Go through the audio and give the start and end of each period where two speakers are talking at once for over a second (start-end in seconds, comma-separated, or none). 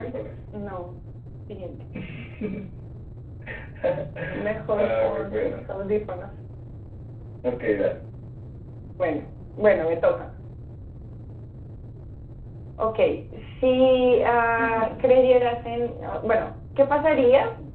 4.3-5.6